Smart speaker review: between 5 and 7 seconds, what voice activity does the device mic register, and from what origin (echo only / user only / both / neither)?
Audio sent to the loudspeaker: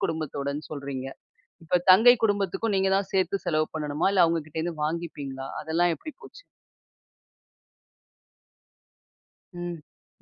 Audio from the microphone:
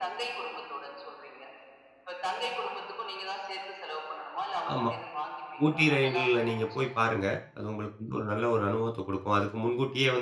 both